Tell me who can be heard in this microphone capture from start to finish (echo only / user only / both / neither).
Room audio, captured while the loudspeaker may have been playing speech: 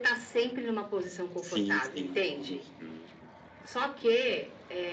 both